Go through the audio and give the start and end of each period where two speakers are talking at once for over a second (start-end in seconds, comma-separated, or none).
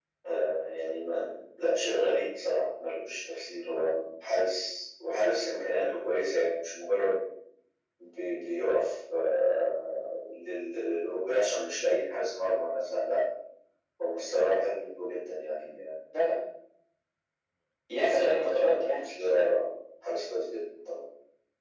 18.0-19.4